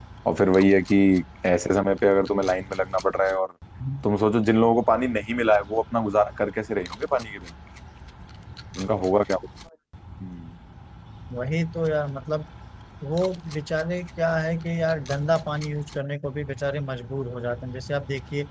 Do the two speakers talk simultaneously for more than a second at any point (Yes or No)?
No